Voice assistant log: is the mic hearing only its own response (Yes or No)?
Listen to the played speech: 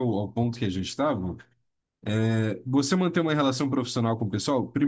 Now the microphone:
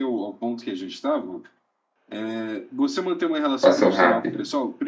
No